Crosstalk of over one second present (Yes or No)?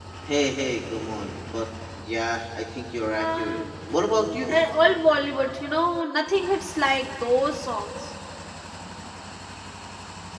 Yes